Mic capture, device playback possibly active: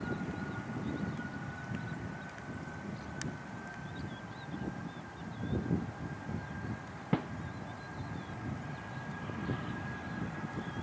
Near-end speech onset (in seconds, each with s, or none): none